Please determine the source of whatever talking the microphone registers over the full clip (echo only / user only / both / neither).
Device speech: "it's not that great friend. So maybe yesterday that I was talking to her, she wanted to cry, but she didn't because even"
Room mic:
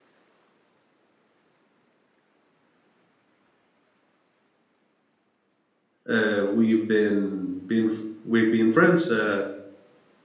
user only